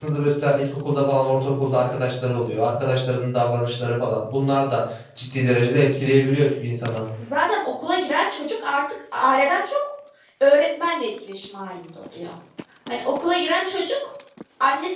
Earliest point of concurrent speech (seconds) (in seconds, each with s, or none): none